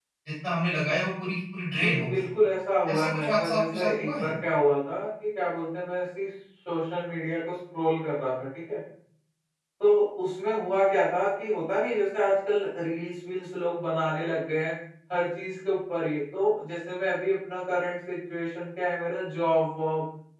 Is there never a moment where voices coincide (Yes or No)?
No